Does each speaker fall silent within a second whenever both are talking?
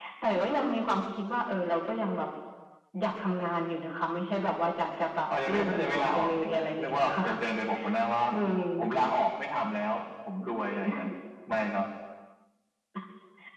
No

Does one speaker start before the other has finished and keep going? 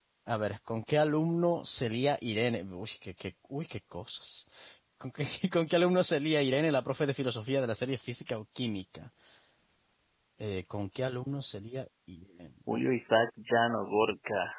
No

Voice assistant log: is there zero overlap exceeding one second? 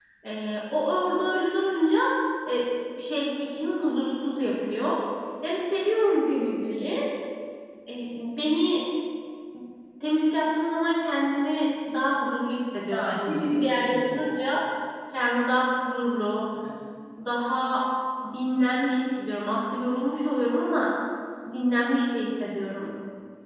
No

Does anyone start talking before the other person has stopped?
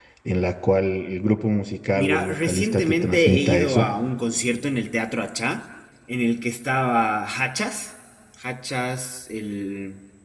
Yes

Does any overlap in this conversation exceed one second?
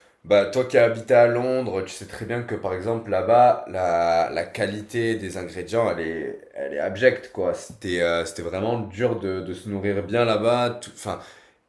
No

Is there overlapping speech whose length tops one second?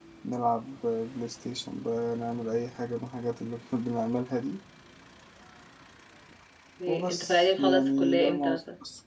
Yes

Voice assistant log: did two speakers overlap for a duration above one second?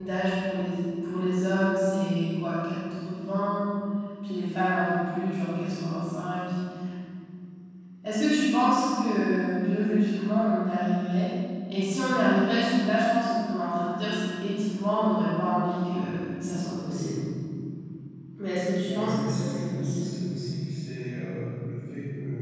Yes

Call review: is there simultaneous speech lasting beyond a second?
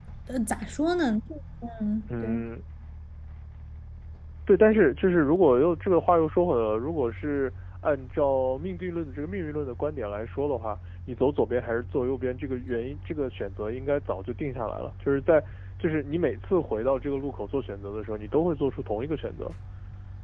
No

